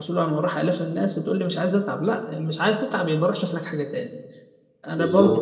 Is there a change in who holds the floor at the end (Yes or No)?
No